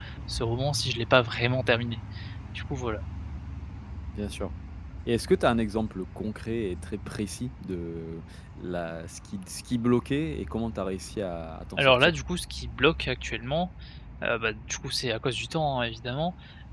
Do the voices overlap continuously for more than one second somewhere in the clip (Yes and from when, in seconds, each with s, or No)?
No